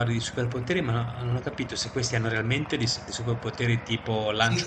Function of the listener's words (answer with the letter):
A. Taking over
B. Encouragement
A